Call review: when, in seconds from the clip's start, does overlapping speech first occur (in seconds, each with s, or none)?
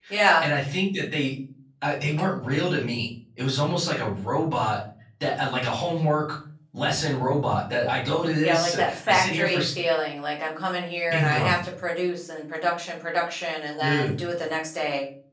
8.4 s